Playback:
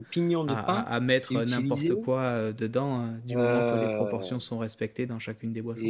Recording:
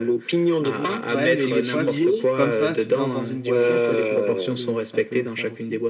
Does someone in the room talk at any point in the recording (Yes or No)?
Yes